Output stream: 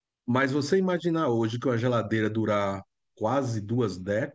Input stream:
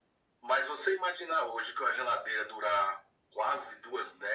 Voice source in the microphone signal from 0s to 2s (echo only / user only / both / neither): echo only